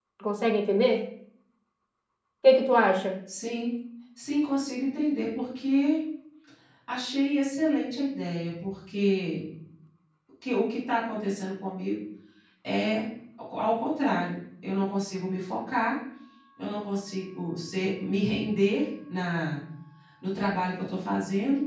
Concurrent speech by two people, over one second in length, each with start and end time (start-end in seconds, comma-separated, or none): none